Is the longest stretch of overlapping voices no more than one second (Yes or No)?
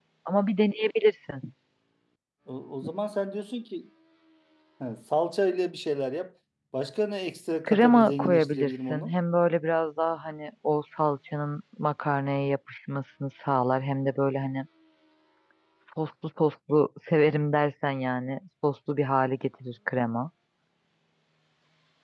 No